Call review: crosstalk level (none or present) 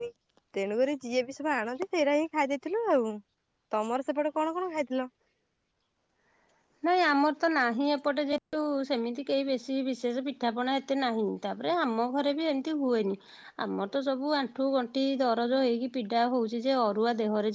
none